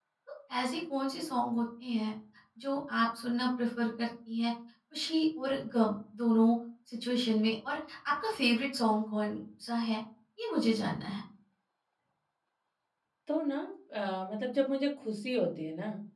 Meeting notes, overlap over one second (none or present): none